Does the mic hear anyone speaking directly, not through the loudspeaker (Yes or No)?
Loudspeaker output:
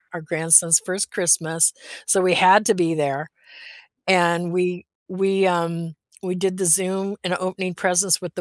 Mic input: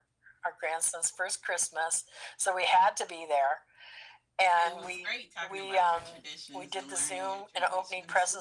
Yes